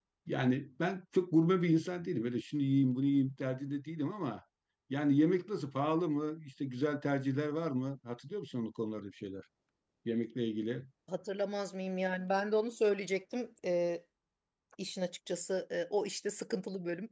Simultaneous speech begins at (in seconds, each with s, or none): none